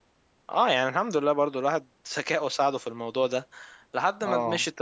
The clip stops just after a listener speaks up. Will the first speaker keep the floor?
Yes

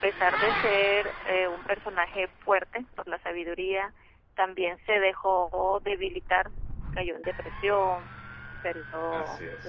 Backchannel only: Yes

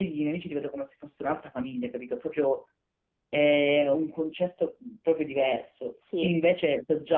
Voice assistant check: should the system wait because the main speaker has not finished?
Yes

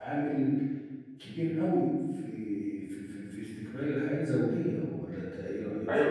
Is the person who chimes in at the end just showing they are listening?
No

